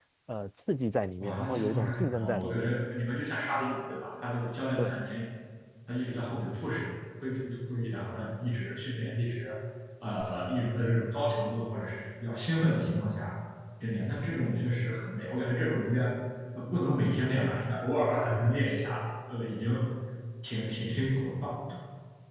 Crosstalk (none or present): present